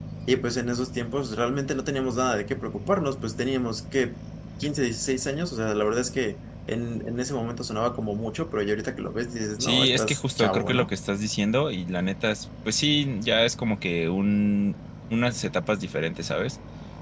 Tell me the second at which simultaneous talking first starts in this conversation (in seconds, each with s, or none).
9.6 s